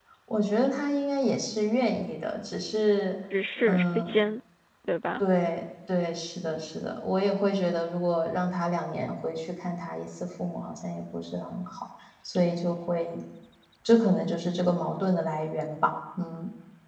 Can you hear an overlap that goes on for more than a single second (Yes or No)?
No